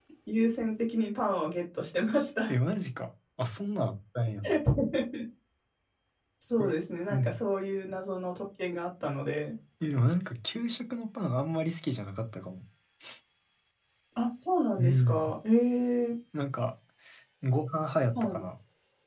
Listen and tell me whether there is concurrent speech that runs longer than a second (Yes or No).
No